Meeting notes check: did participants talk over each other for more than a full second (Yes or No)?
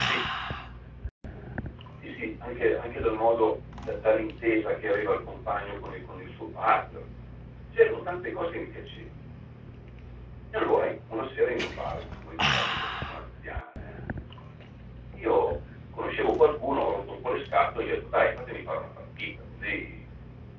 No